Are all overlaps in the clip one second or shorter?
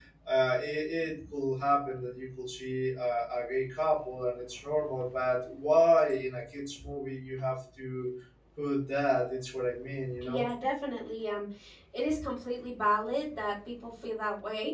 Yes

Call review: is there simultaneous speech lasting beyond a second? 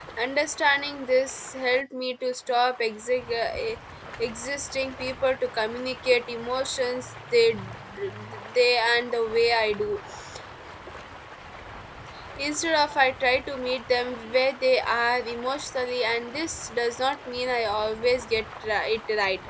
No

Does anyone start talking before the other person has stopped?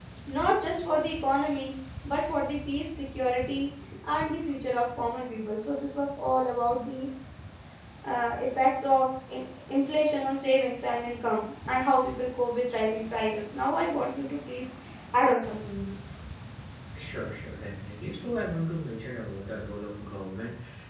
No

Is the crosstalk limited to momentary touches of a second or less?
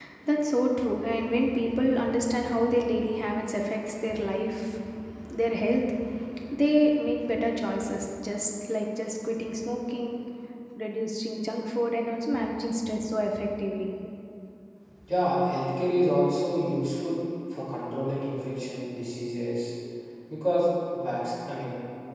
Yes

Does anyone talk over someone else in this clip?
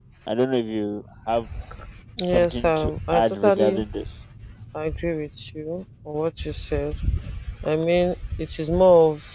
Yes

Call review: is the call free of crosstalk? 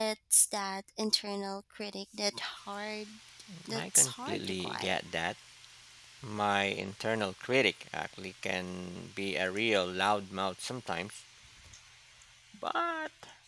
No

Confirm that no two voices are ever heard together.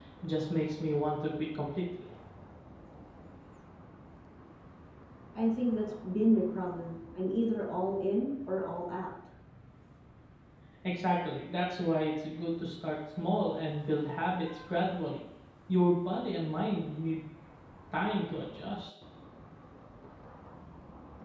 Yes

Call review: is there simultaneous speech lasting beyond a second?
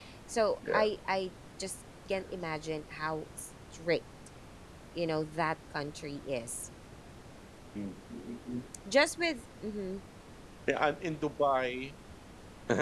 No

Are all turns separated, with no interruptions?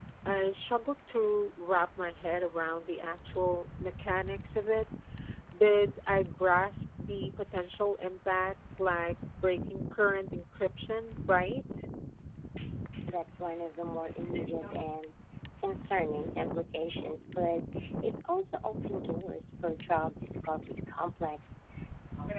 Yes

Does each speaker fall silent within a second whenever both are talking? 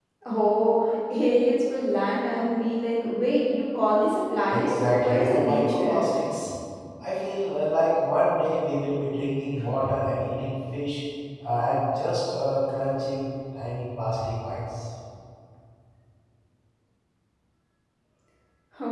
No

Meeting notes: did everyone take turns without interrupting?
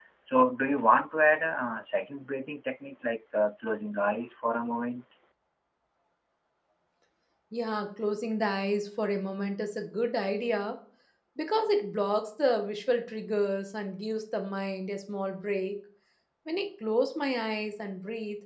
Yes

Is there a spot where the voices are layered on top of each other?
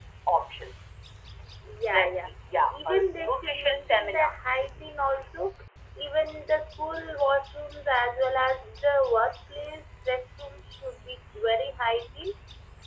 Yes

